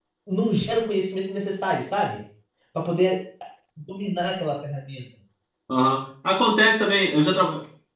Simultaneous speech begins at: none

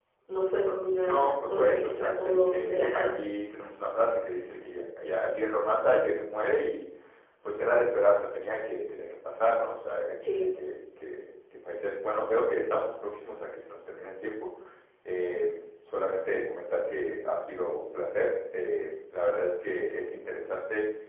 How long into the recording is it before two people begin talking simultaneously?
1.0 s

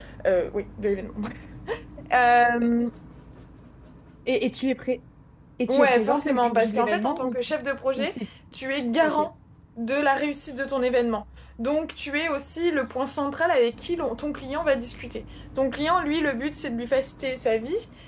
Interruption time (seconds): 5.7 s

